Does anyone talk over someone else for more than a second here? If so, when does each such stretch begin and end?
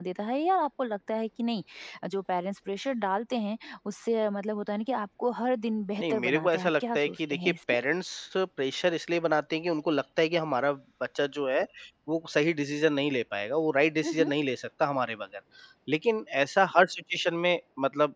6.0-7.5

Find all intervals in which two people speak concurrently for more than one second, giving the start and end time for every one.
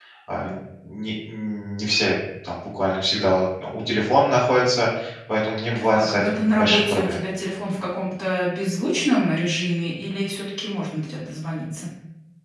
5.9-7.2

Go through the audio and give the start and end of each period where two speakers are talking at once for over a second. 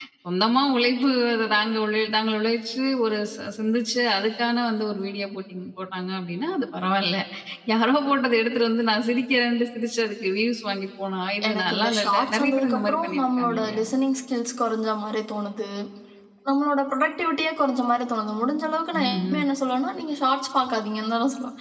11.5-13.8

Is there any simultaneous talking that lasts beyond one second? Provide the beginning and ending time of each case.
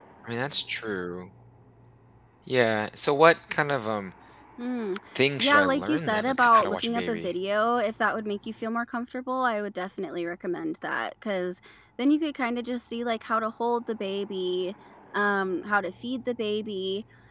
5.4-7.3

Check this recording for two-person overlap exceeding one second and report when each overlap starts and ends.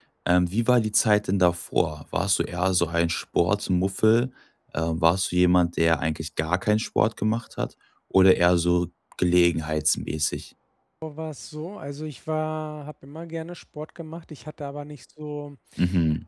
none

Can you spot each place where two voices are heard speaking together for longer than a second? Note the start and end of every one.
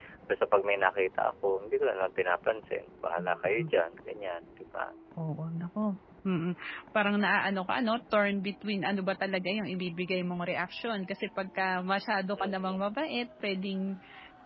none

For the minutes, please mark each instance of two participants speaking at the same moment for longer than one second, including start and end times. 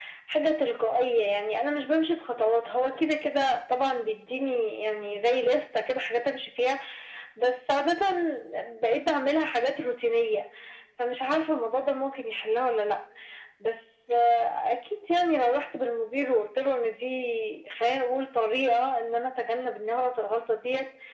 none

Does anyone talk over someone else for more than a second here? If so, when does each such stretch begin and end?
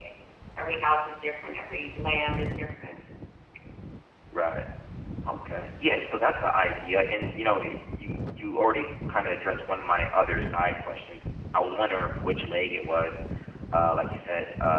none

